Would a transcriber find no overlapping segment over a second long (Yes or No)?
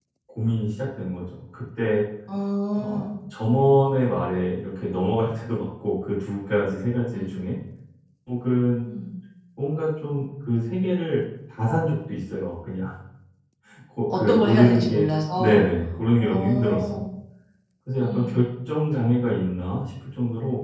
No